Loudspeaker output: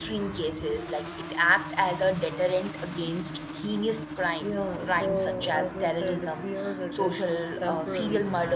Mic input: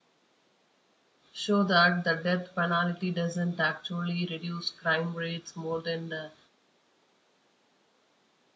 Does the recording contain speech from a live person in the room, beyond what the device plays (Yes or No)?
Yes